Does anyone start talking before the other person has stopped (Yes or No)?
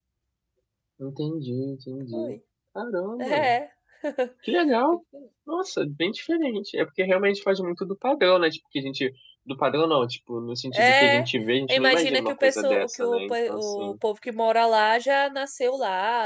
Yes